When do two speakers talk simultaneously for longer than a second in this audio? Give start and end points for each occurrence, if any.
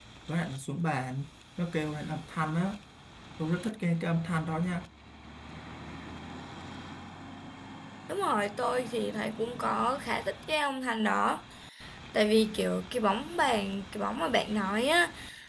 none

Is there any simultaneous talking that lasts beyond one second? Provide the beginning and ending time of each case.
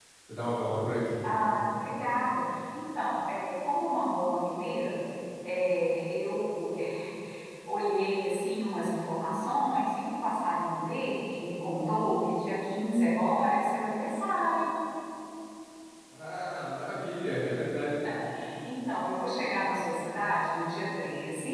none

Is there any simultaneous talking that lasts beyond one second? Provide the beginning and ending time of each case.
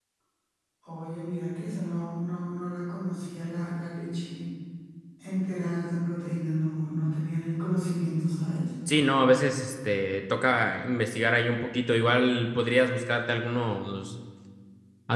none

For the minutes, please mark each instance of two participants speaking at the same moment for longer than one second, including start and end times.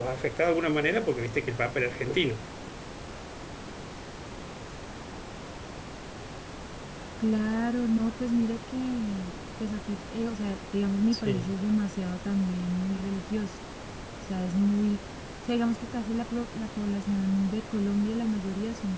none

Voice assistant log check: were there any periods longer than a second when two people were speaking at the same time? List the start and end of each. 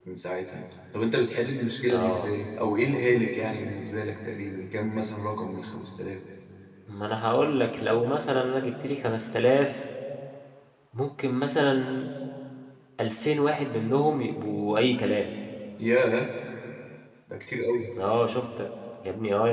none

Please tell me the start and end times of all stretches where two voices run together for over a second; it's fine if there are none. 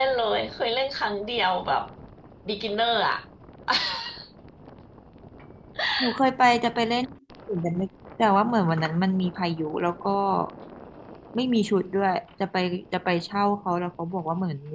none

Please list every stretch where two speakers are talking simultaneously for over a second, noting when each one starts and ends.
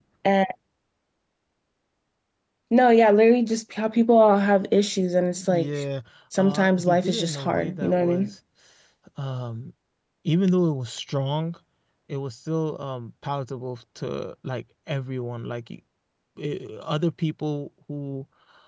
6.4-8.3

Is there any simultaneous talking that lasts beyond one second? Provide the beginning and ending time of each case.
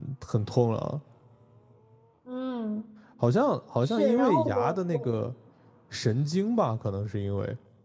3.8-5.1

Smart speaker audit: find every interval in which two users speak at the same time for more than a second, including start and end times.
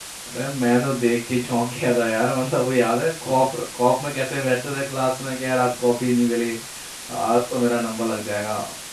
none

